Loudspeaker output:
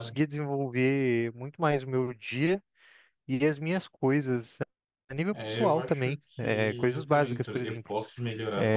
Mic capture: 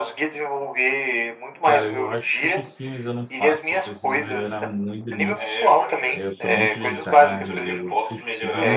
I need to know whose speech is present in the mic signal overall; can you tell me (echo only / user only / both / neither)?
both